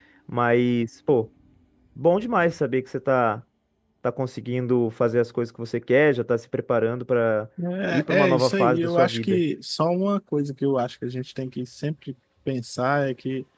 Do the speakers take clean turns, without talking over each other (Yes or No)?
No